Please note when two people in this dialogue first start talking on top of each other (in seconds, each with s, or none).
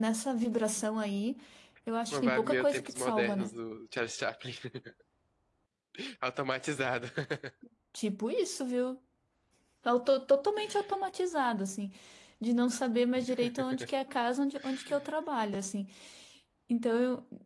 2.1 s